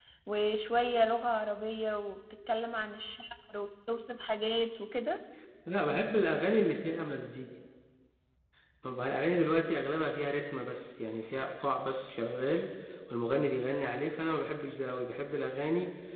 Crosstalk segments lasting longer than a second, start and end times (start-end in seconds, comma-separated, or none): none